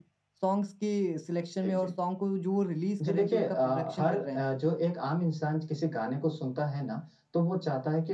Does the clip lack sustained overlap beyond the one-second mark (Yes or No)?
No